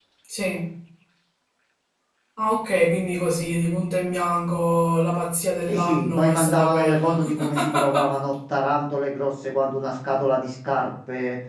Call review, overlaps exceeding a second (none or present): present